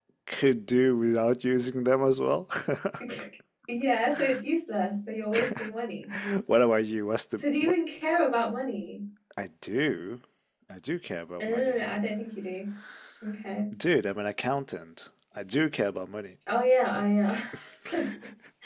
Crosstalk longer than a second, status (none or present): none